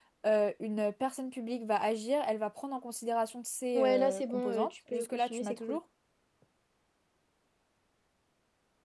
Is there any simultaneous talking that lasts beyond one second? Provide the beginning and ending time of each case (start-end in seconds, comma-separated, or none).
3.8-5.8